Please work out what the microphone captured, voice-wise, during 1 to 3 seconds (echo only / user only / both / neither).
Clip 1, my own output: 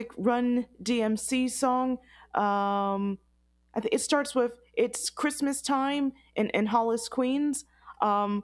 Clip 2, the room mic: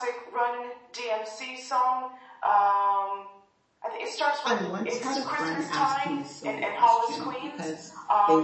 echo only